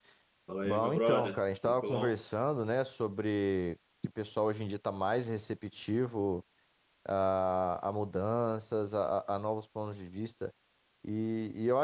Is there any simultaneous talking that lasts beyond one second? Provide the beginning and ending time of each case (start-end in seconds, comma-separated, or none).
0.6-2.2